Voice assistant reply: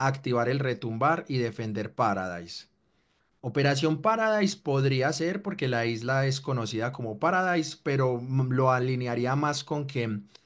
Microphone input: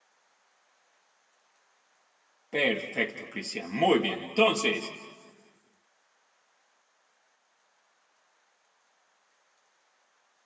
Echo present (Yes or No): No